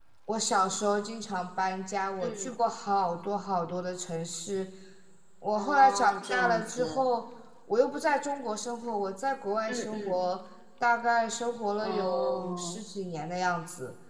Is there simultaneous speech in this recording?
Yes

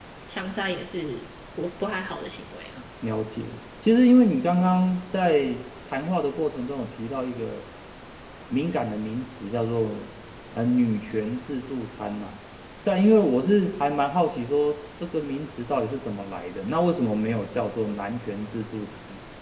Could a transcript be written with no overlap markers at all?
Yes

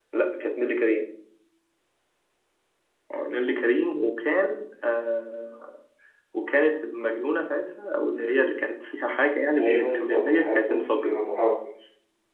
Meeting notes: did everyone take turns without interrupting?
No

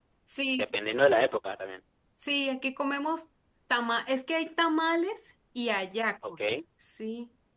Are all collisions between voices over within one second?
Yes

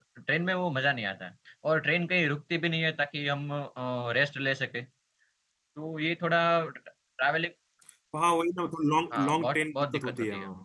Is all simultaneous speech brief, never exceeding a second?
No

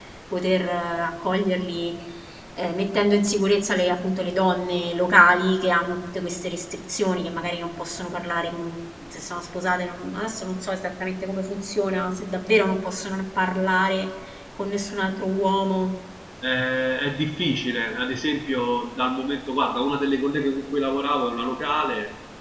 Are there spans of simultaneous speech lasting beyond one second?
No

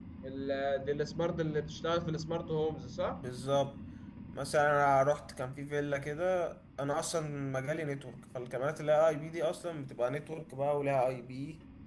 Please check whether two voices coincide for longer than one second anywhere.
No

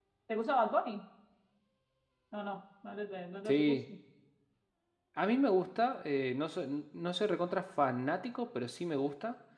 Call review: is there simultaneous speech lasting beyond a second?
No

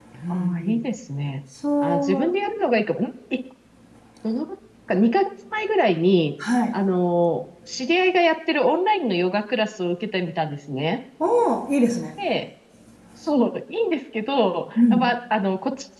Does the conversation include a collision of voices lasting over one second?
No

